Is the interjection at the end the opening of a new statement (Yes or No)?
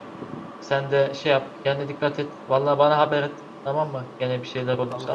Yes